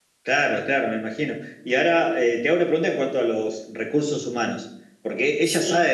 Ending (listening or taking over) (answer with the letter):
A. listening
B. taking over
A